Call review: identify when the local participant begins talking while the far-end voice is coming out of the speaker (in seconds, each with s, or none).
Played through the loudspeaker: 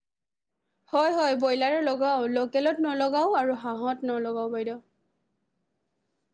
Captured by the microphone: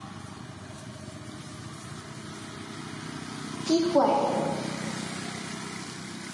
3.7 s